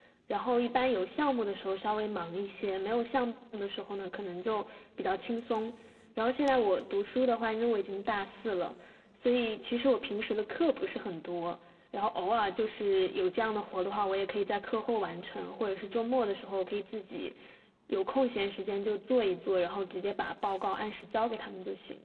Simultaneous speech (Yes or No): No